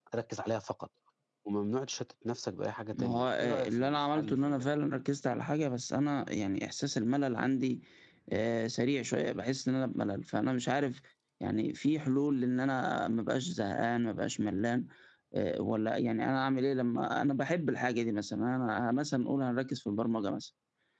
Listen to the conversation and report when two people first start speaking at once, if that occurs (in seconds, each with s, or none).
2.9 s